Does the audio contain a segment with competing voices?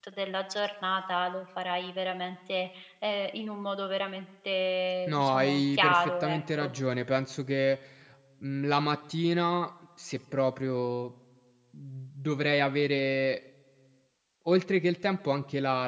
Yes, from 5.1 s

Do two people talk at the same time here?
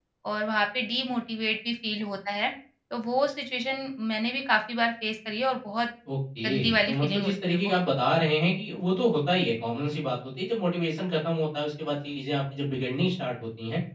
Yes, from 6.5 s

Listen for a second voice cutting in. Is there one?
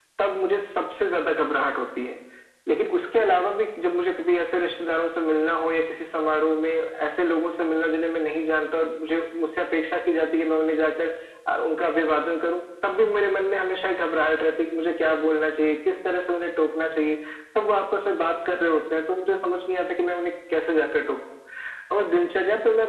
No

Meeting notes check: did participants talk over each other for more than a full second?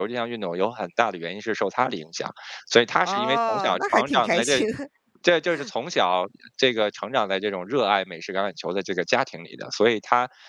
Yes, from 3.0 s

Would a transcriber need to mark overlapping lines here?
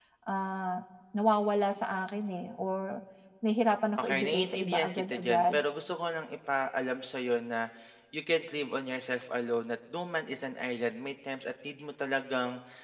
Yes, from 4.0 s

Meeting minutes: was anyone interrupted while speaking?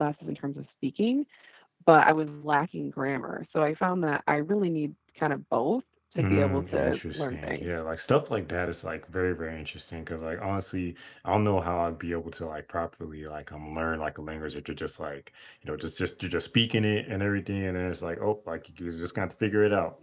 Yes, from 6.2 s

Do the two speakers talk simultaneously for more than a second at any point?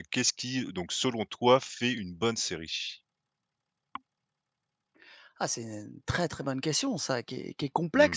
No

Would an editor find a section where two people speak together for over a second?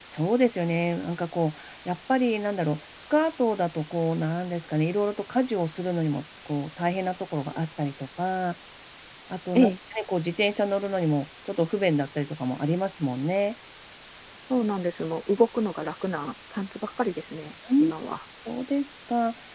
No

